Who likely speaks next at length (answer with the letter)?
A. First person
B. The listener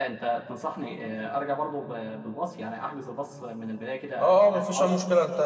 B